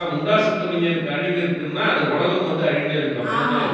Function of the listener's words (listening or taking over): taking over